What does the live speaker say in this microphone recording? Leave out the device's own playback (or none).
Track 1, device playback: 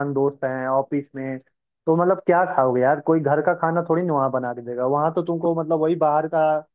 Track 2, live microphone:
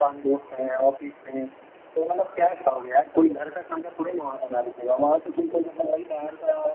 none